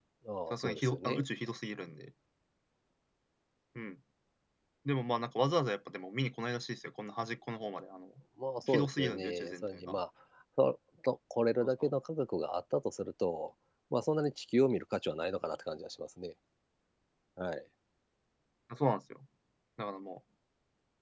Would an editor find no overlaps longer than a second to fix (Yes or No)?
No